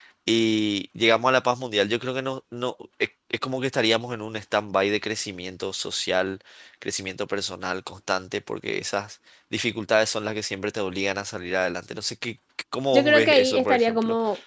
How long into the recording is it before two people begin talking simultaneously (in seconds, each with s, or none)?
12.9 s